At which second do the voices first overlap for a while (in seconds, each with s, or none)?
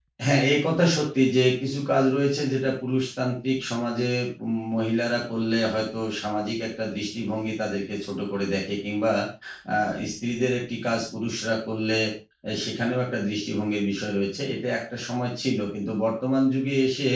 none